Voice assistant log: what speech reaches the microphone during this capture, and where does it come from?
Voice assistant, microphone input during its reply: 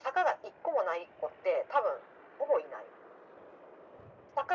echo only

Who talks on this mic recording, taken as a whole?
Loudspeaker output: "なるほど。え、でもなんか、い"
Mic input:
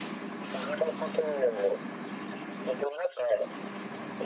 echo only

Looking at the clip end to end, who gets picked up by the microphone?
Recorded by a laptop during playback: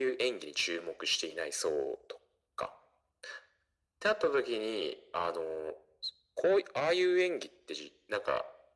echo only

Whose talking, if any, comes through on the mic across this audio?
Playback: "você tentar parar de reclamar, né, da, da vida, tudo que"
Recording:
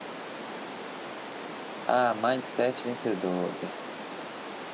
user only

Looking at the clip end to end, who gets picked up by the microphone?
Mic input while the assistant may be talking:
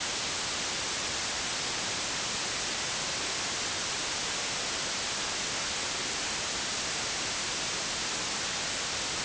neither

